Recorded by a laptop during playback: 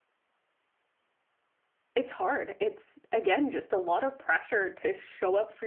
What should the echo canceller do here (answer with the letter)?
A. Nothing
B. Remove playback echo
A